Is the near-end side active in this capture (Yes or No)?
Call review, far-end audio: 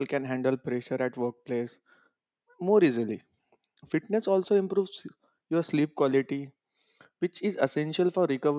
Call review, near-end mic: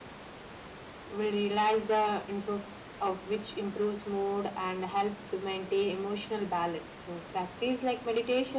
Yes